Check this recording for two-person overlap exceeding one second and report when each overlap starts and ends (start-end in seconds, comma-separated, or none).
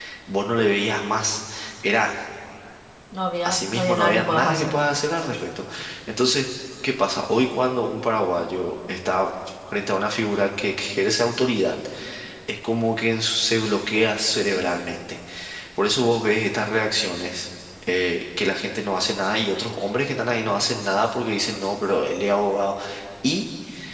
3.4-4.9